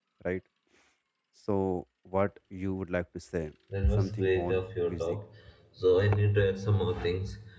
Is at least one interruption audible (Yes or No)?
Yes